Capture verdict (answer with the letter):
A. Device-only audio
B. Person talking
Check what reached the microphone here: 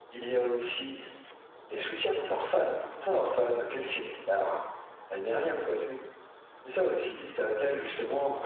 A